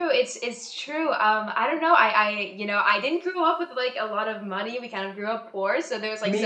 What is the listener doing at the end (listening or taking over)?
listening